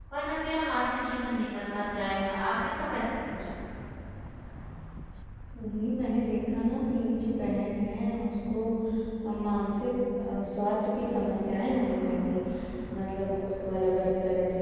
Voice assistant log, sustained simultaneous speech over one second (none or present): none